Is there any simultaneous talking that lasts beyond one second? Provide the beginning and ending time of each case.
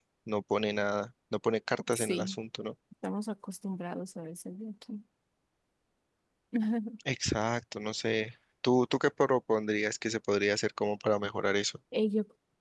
none

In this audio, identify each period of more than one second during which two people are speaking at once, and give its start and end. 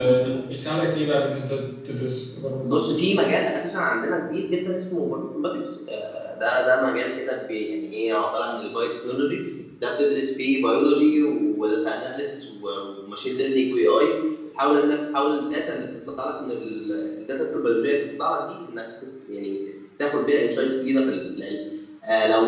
none

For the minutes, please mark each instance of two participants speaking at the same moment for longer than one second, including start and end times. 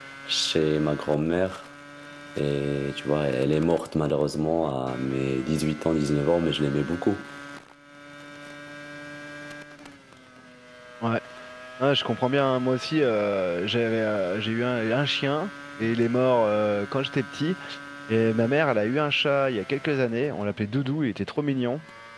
none

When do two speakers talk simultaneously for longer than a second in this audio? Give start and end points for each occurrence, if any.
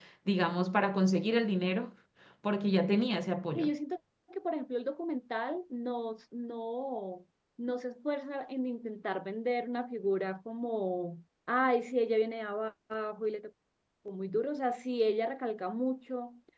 none

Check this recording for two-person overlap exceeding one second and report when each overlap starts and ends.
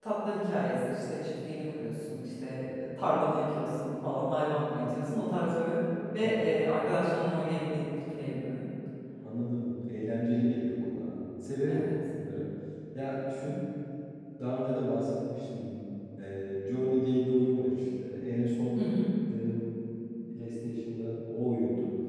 none

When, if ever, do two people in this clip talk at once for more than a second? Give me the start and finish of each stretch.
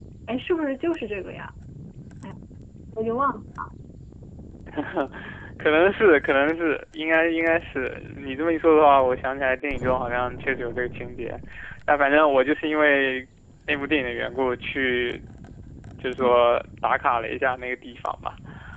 none

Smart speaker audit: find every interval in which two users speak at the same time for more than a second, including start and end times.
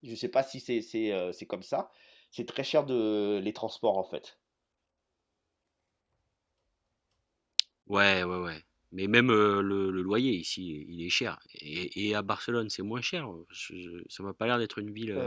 none

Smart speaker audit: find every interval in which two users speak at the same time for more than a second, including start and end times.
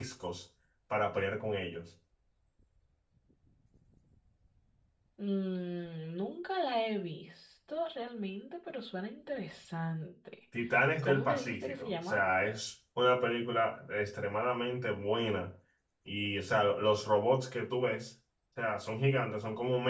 11.0-12.3

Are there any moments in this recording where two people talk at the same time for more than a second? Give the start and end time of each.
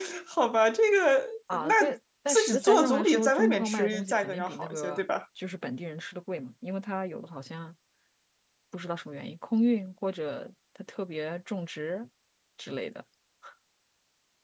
2.3-5.0

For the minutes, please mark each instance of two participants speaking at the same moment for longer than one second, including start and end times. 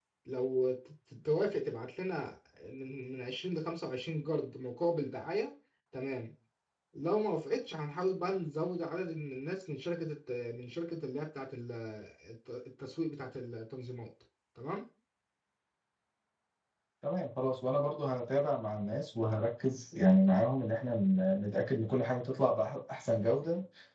none

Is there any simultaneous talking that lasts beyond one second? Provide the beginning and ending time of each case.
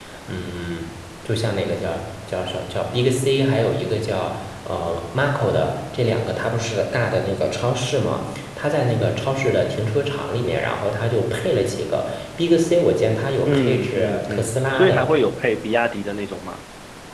13.5-15.1

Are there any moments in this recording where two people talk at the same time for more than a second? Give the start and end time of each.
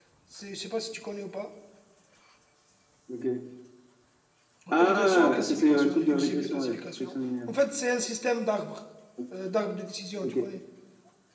4.8-7.5

